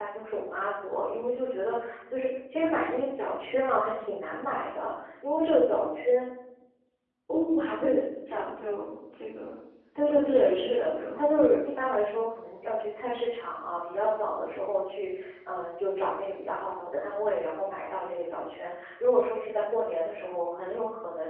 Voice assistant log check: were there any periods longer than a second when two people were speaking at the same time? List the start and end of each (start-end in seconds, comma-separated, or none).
10.0-11.2